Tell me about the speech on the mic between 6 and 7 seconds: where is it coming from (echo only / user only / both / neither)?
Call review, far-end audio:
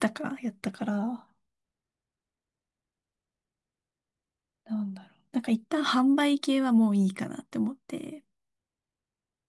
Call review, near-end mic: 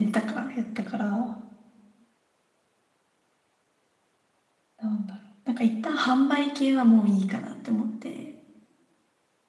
echo only